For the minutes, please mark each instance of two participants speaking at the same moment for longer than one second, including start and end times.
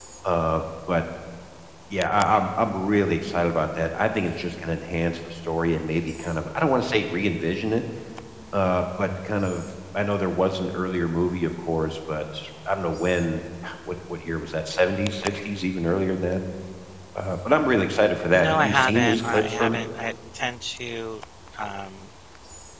18.3-19.8

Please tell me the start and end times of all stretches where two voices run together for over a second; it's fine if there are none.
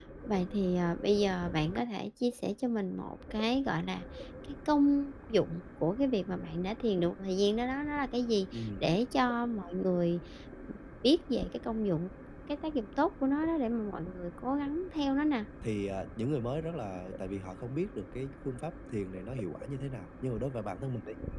none

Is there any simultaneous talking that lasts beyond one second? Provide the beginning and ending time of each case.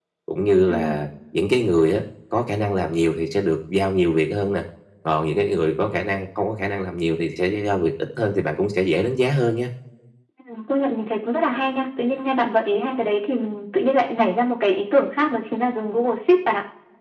none

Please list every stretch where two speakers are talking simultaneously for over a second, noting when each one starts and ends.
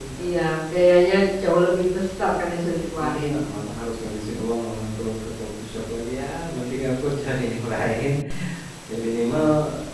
none

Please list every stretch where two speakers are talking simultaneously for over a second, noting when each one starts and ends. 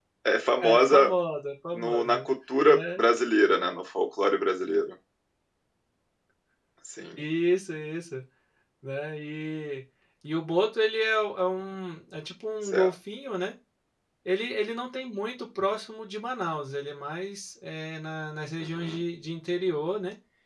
none

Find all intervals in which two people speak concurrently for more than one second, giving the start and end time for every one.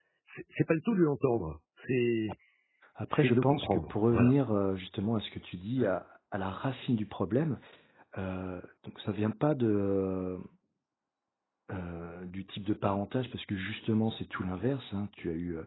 3.1-4.3

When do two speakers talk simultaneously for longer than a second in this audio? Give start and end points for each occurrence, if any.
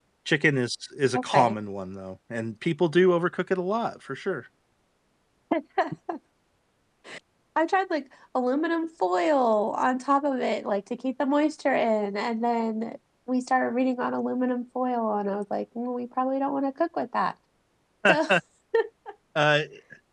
none

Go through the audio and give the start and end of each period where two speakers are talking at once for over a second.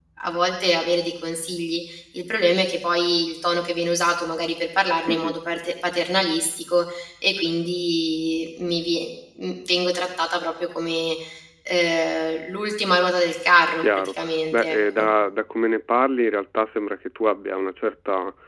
13.8-15.1

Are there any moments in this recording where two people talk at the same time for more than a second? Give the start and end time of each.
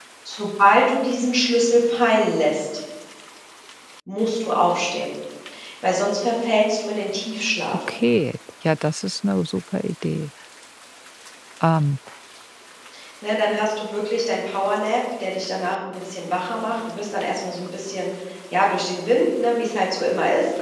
none

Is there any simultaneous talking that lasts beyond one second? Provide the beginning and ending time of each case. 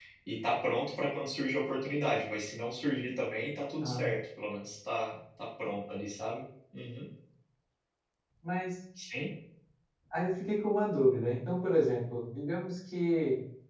none

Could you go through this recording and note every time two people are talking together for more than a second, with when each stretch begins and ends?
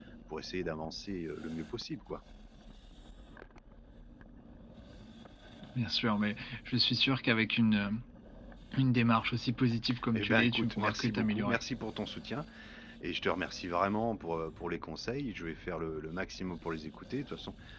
10.1-11.6

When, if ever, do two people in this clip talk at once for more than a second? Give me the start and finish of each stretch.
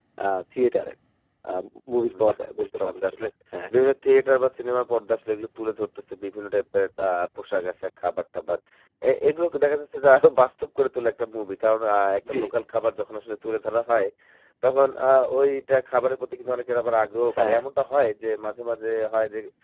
2.0-3.3

